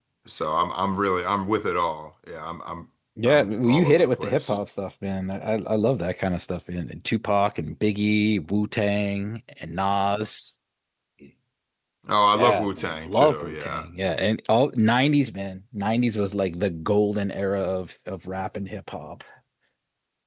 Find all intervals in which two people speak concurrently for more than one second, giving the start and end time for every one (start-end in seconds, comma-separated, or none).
3.2-4.6, 12.3-13.8